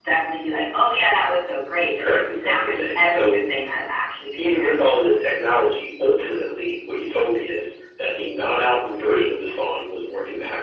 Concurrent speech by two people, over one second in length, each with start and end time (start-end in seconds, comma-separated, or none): 2.0-3.4